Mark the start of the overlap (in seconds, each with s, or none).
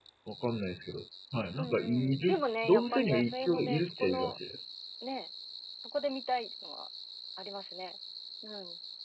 1.6 s